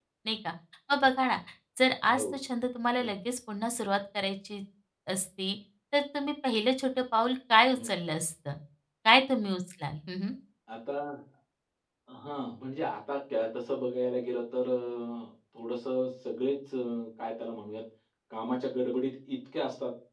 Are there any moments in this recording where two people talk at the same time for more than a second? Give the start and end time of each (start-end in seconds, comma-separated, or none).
none